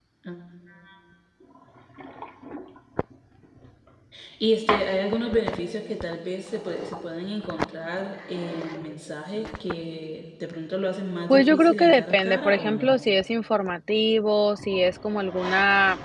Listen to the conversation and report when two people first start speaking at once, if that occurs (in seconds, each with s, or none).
11.3 s